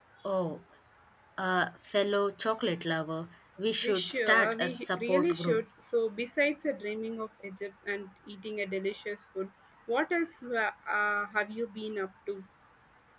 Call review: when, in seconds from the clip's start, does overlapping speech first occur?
3.8 s

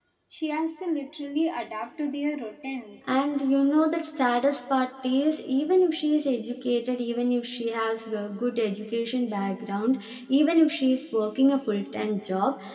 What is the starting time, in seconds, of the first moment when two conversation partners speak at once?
none

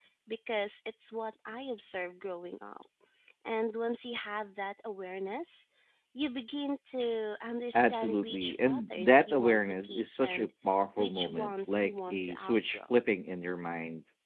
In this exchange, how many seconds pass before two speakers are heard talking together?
7.7 s

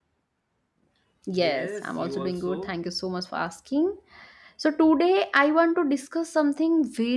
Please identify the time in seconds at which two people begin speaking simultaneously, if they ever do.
1.4 s

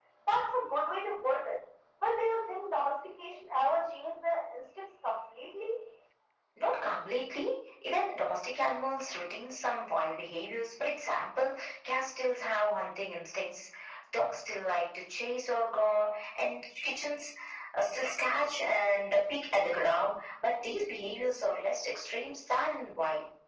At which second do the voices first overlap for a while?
none

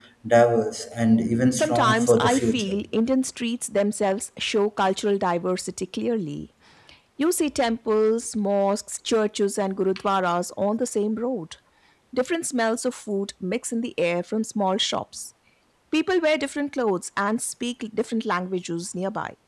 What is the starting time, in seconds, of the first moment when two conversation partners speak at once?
1.5 s

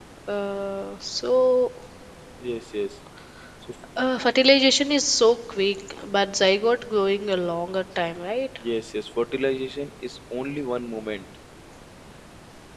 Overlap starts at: none

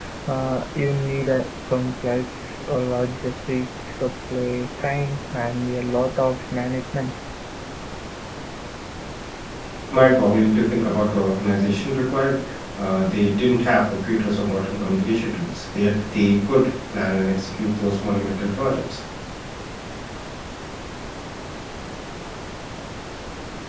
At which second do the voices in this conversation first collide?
none

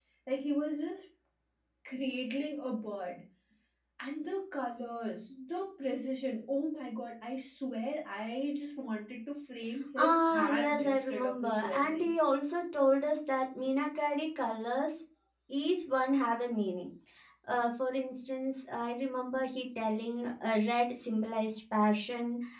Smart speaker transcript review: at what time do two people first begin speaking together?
10.0 s

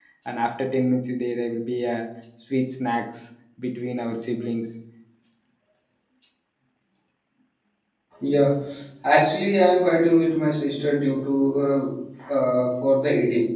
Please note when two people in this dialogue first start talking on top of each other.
none

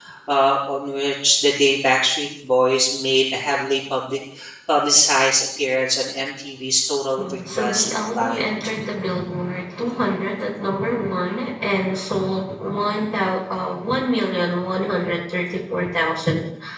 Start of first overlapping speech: 7.2 s

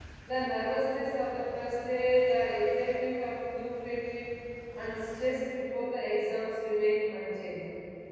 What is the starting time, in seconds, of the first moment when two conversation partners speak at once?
none

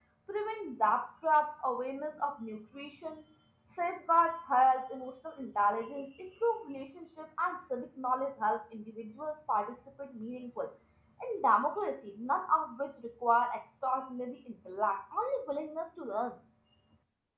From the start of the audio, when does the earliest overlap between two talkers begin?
none

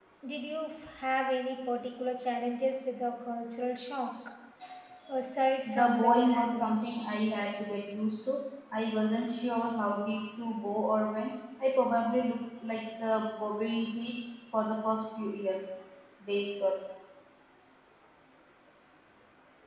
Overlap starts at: 5.7 s

